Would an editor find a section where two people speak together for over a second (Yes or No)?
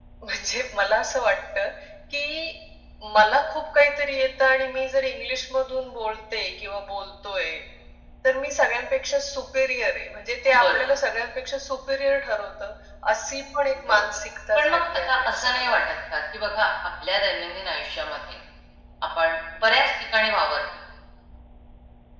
Yes